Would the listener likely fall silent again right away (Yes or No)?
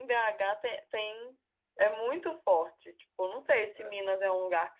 Yes